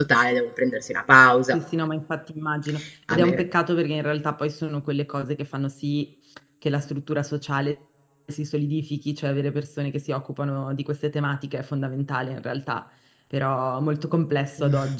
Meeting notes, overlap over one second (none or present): none